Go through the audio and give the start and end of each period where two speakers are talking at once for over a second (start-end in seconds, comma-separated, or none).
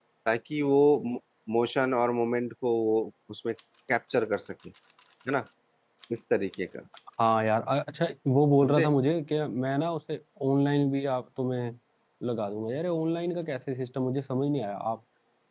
none